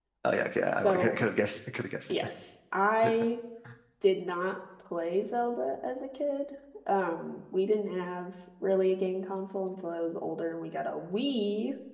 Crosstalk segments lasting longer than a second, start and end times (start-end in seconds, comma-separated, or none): none